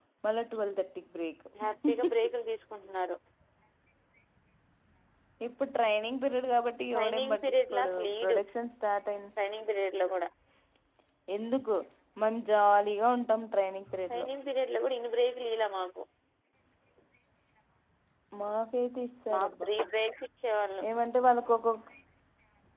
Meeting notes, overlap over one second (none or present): present